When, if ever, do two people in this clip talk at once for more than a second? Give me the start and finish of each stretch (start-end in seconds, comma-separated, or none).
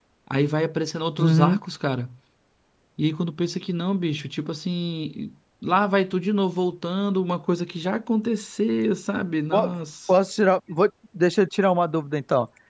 none